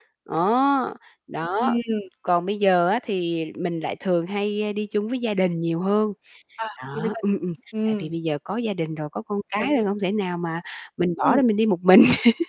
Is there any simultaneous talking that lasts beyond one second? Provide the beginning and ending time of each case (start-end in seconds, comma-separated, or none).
none